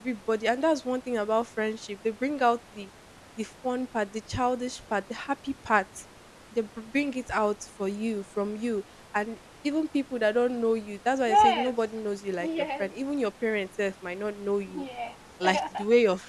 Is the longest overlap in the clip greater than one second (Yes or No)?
No